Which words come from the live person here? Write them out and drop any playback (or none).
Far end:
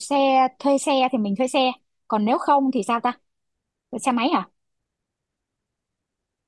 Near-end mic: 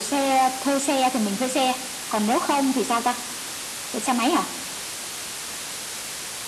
none